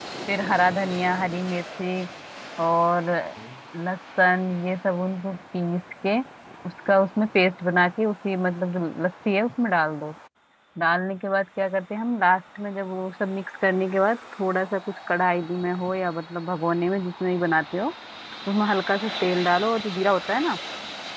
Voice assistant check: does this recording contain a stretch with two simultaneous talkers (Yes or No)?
No